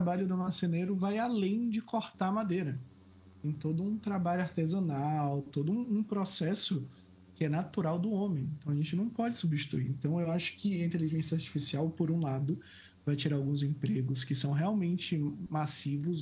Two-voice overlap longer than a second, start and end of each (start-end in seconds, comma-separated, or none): none